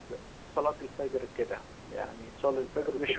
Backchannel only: No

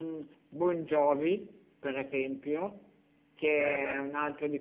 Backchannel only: Yes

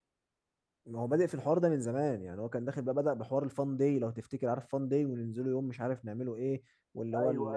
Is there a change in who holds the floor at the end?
No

